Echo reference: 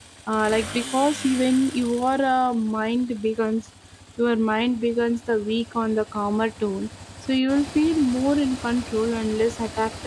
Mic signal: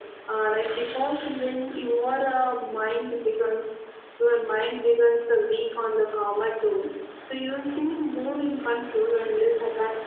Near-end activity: none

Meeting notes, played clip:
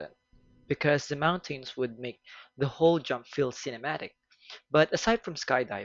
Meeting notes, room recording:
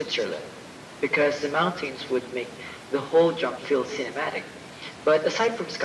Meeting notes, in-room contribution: none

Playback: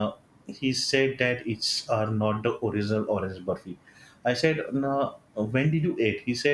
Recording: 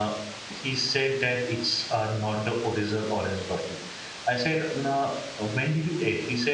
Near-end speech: none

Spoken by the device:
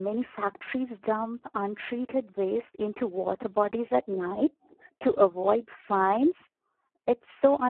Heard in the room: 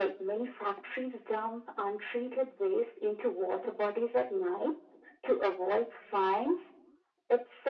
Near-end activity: none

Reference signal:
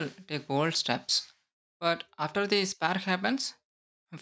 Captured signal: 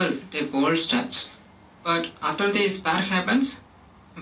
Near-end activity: none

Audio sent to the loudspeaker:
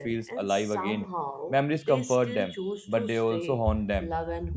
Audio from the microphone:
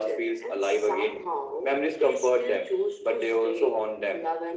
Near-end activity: none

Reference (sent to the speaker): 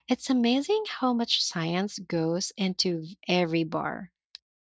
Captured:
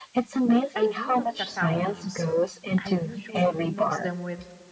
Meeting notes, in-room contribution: present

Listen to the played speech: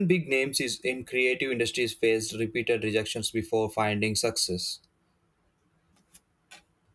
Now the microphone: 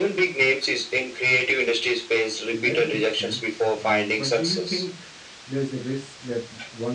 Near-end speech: present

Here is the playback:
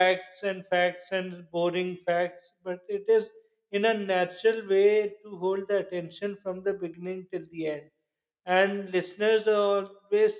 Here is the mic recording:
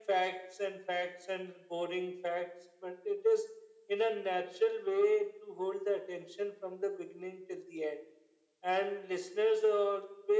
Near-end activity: none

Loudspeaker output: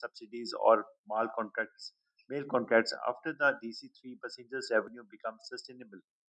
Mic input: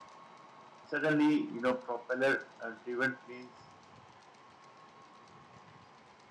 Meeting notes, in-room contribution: present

